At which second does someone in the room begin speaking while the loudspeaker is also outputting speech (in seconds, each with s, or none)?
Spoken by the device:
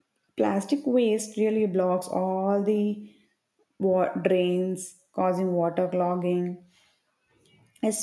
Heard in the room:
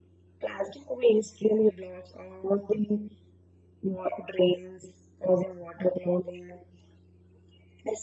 none